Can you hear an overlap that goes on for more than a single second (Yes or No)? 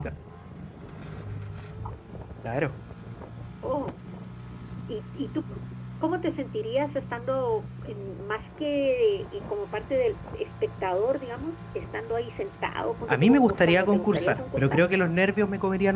Yes